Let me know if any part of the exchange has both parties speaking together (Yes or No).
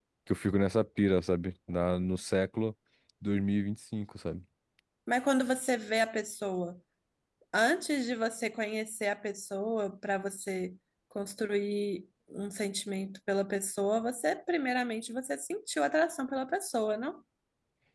No